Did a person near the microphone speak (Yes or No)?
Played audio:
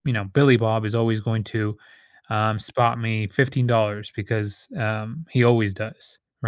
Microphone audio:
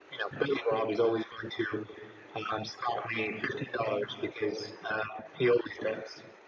No